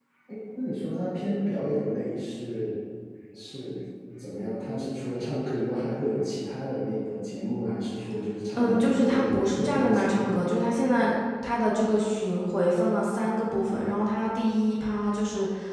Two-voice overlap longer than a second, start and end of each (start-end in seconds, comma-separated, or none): 8.6-10.5